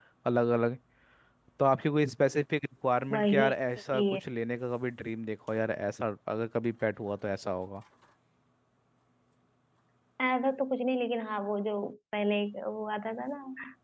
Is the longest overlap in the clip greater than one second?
No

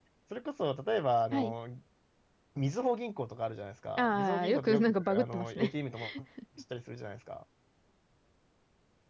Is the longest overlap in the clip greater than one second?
Yes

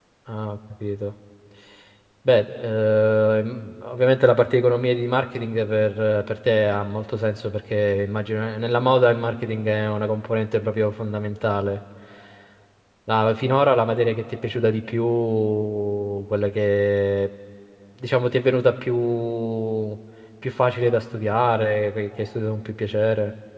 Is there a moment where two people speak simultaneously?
No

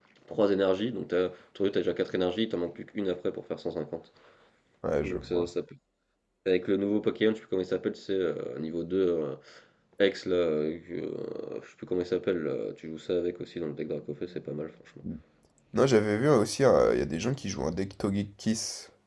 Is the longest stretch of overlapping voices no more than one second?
Yes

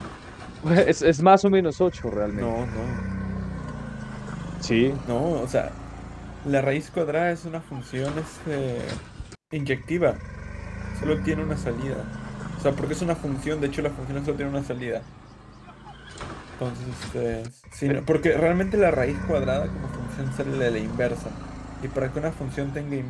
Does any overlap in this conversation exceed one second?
No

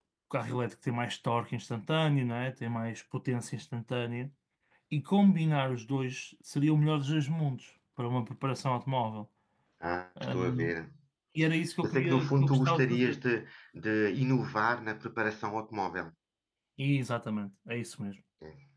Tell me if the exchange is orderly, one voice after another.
No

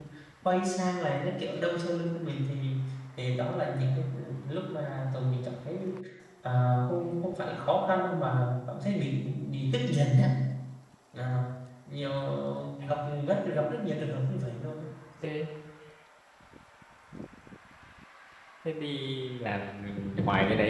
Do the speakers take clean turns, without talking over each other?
Yes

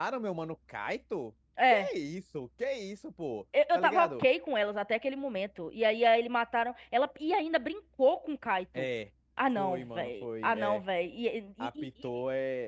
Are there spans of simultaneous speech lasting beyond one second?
Yes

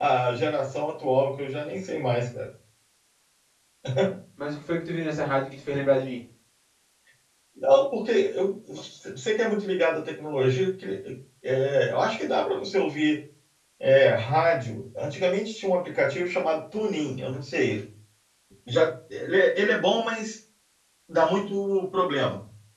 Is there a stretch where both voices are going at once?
No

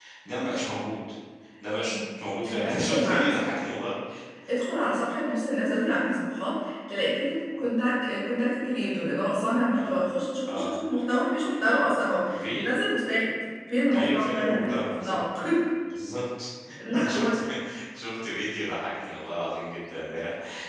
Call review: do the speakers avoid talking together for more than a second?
No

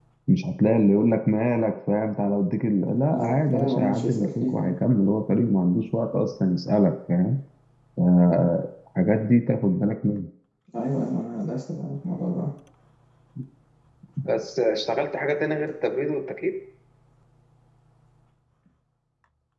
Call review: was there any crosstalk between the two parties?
Yes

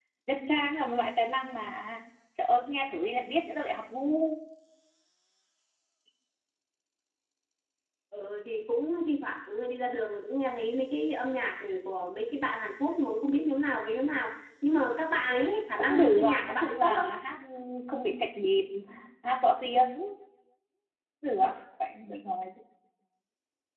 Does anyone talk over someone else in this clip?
Yes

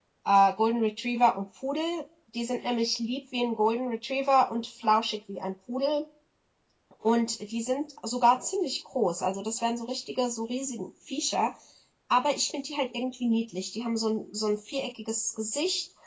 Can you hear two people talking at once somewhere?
No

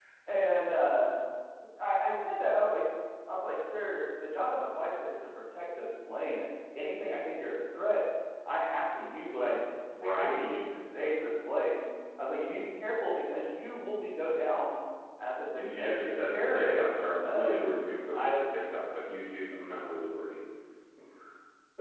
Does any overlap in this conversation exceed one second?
Yes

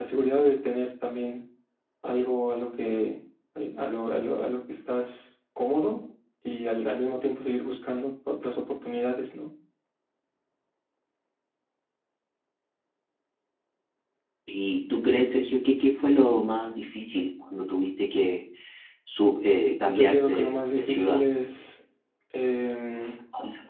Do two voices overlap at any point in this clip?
Yes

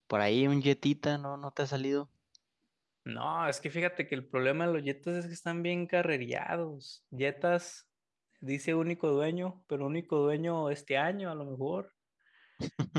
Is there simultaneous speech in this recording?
No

